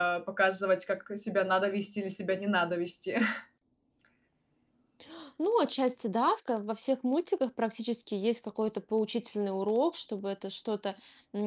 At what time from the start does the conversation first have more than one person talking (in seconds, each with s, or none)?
none